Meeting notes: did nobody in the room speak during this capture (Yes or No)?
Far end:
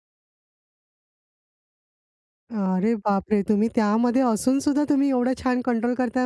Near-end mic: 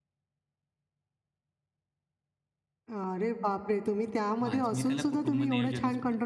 No